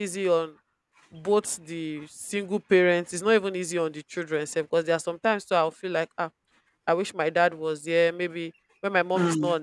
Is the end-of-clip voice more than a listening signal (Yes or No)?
No